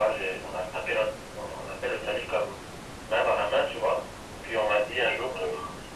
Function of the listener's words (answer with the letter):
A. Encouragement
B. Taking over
A